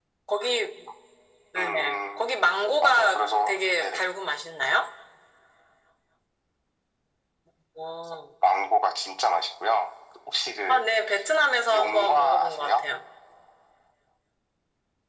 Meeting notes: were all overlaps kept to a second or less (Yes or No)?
No